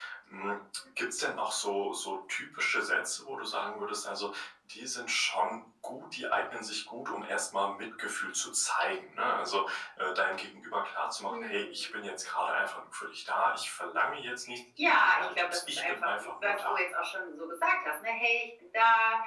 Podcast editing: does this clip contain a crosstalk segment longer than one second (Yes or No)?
Yes